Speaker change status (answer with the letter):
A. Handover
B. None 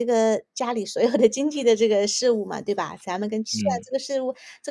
B